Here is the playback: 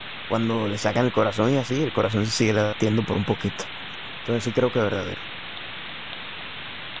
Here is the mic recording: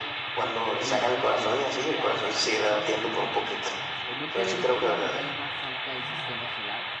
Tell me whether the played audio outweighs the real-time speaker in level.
Yes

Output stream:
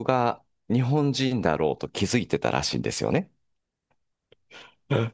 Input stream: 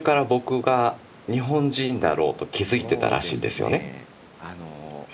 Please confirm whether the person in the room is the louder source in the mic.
No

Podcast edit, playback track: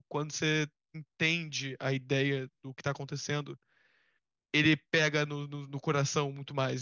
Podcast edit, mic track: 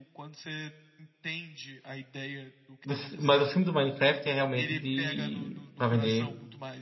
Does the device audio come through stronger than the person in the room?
No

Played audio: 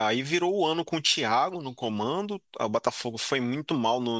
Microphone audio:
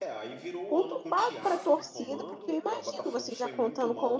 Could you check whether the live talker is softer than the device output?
No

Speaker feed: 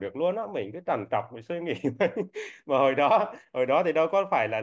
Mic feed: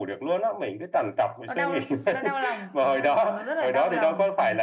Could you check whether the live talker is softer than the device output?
Yes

